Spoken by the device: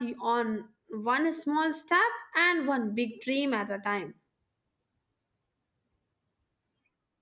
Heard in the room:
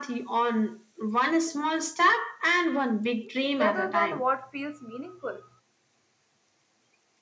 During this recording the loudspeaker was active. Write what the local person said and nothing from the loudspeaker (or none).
rather than what feels meaningful.